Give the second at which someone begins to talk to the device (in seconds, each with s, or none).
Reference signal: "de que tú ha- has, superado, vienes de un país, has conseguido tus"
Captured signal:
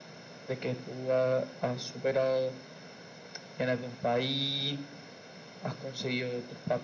none